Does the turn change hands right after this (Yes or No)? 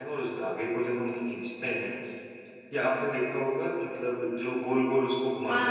Yes